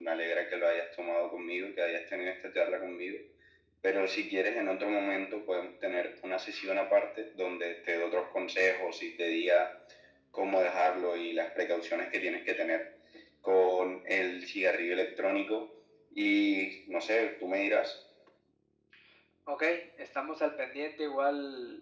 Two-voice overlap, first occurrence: none

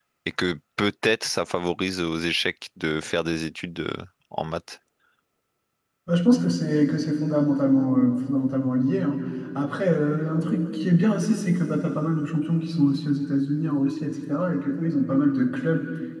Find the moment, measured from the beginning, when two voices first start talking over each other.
none

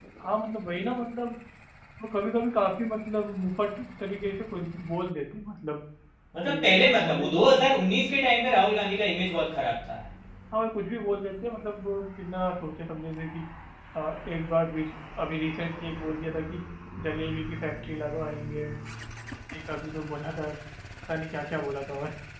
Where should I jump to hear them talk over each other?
6.5 s

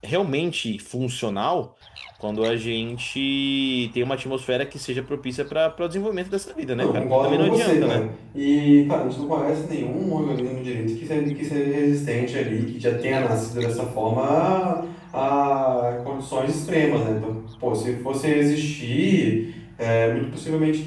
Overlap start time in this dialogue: 6.8 s

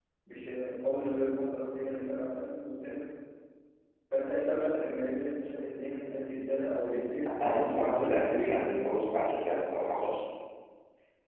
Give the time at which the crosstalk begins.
7.4 s

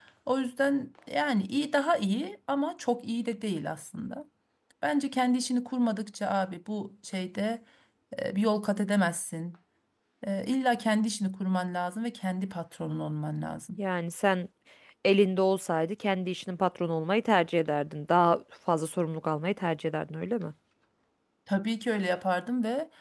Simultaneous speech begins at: none

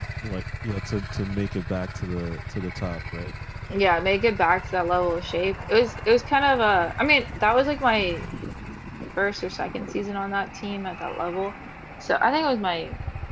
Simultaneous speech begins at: none

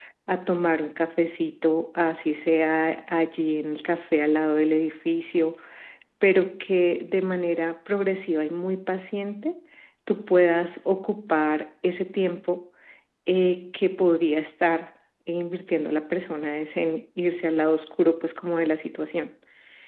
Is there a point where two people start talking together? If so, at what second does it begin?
none

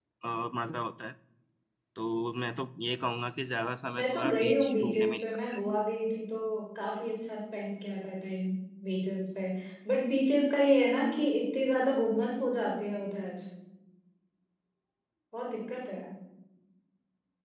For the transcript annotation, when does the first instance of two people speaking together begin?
4.0 s

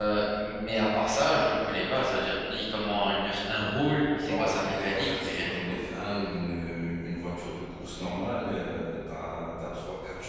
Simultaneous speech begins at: 4.2 s

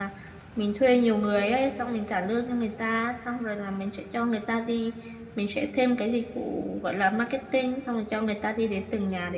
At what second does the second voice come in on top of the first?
none

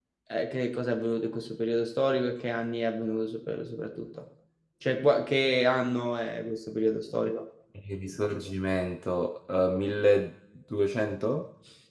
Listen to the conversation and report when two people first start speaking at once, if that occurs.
none

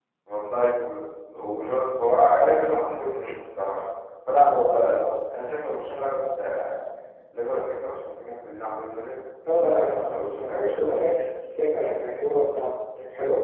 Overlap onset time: 9.4 s

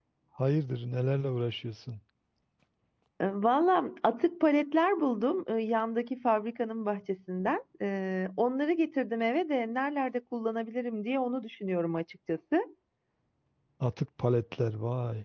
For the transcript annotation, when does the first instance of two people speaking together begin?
none

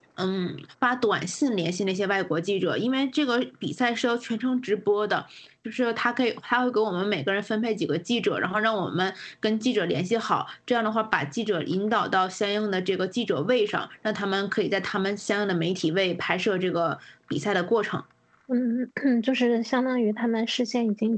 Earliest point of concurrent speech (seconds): none

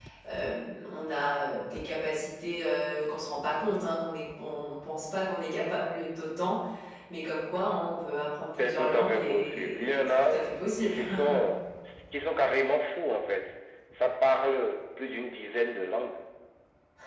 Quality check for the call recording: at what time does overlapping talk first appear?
8.6 s

